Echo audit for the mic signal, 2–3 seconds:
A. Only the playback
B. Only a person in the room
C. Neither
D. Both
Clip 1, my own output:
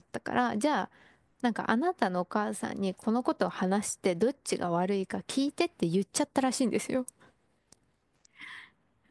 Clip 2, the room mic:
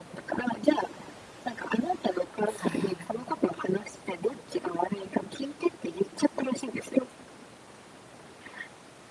D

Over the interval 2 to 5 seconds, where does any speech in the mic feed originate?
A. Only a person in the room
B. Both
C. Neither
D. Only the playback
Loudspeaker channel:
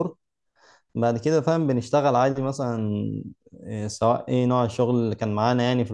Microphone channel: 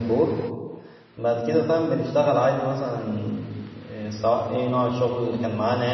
D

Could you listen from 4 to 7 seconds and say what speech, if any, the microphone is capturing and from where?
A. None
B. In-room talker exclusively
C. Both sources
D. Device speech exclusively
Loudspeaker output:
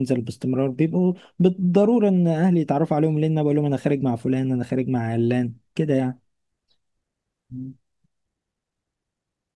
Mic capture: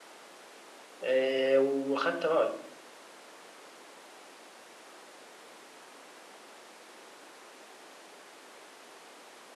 A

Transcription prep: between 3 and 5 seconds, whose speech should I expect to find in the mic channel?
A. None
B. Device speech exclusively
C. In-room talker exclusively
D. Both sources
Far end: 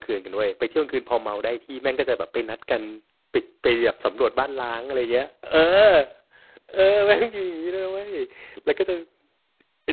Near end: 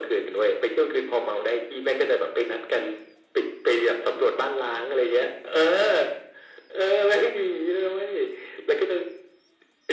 B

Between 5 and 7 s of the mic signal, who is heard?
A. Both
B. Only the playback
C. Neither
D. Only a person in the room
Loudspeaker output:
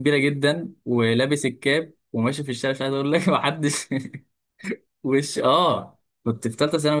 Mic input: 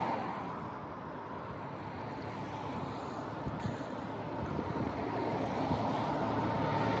C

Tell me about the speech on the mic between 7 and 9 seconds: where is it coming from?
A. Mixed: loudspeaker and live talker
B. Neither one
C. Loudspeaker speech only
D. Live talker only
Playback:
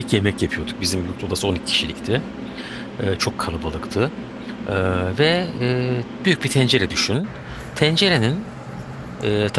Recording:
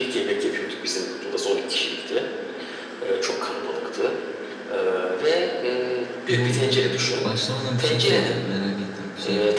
A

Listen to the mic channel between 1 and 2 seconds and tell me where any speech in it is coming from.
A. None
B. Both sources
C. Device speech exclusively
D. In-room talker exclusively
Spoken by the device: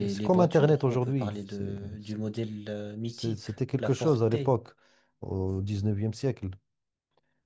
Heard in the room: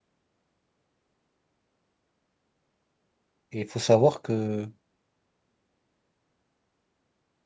A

